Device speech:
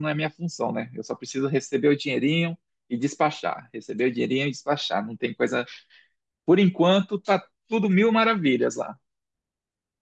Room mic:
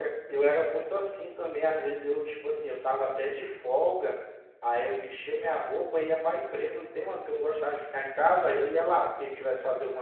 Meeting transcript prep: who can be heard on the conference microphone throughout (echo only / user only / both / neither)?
user only